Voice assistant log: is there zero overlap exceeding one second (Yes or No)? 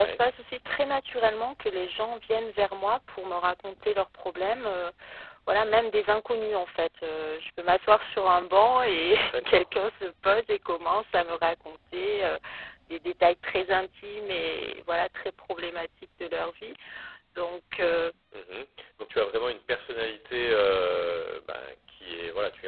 Yes